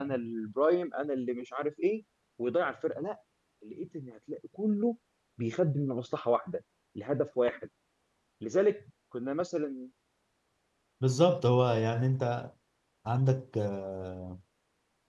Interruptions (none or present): none